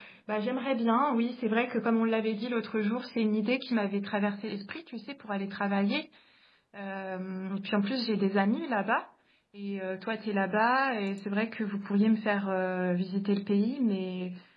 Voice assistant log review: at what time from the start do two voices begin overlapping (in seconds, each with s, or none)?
none